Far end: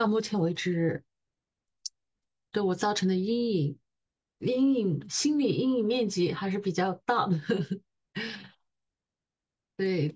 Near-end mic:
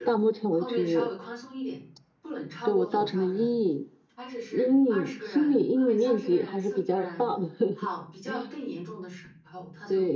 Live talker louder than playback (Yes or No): No